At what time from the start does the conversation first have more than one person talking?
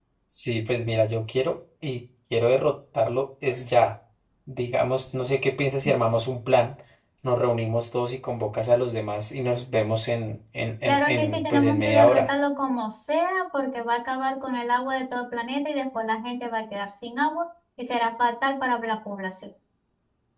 10.8 s

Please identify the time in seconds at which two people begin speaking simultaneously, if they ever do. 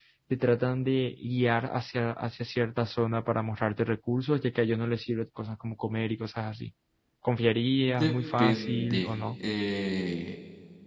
7.8 s

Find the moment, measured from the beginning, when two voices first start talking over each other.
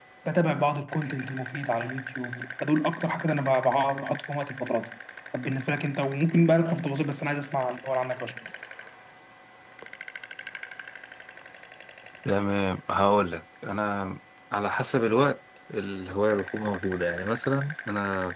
none

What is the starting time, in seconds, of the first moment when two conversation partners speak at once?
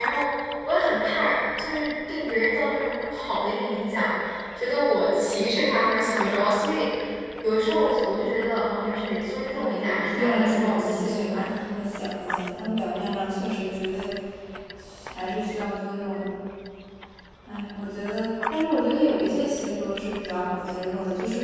9.5 s

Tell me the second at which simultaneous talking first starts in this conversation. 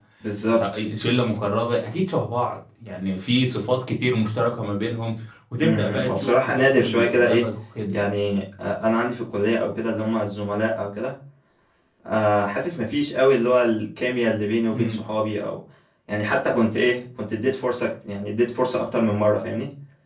5.6 s

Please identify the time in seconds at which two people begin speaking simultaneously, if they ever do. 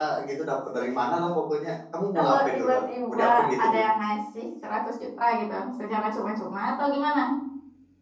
2.2 s

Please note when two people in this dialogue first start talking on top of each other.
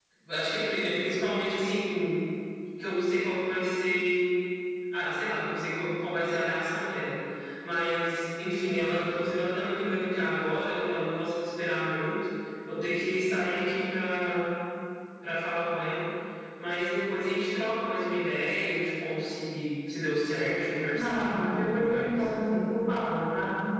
20.9 s

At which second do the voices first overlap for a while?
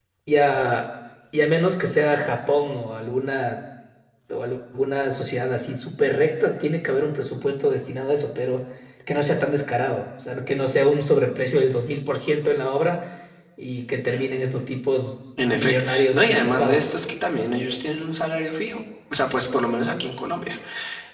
15.4 s

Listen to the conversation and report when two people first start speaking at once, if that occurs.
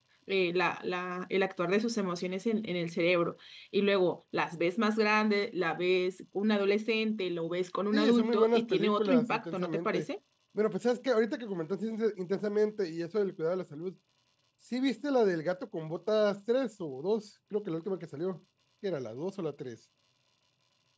7.9 s

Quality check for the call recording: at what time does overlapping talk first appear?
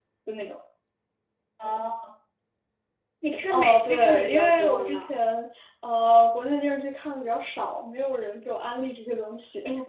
3.5 s

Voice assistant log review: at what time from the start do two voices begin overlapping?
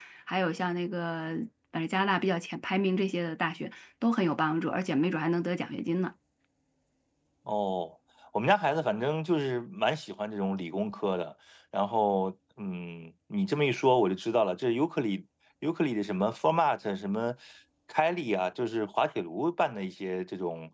none

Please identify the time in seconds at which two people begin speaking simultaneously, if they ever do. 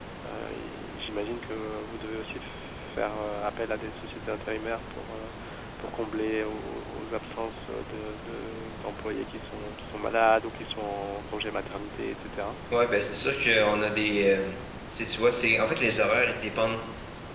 none

